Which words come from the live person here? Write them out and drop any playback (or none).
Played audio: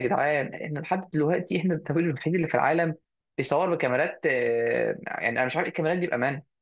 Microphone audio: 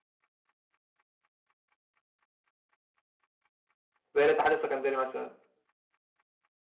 زي الاتحاد السكندري مثلا